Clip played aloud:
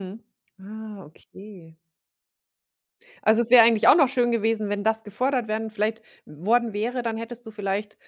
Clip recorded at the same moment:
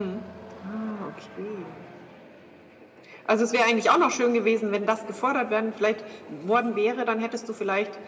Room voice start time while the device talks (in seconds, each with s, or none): none